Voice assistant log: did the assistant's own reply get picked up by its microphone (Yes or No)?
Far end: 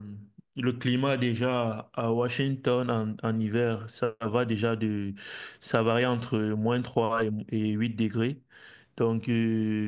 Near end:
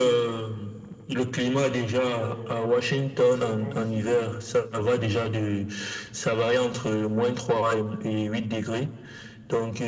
Yes